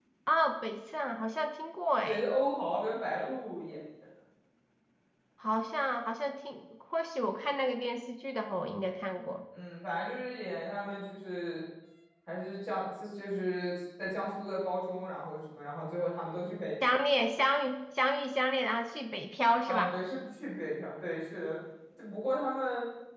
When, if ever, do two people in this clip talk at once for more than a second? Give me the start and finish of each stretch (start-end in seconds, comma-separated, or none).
none